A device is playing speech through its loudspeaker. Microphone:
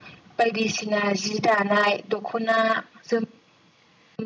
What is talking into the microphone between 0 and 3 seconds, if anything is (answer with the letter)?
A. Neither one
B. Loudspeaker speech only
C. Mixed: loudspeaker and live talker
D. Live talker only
B